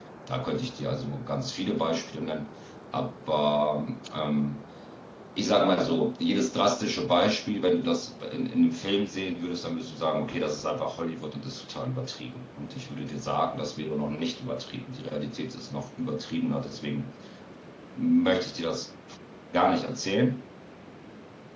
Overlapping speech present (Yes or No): No